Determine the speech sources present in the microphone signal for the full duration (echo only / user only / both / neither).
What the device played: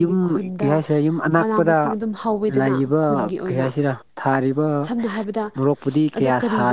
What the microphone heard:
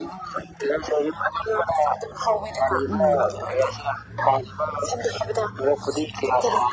both